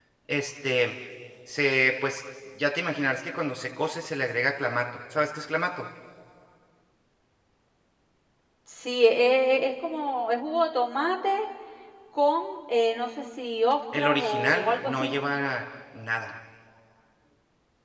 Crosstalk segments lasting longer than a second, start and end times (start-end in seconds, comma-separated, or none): 14.0-15.2